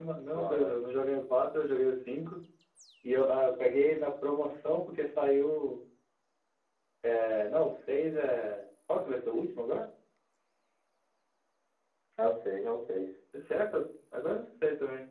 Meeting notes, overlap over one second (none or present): none